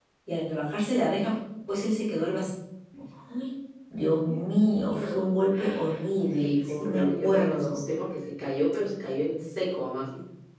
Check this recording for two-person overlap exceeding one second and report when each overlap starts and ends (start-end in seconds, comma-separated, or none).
6.3-7.8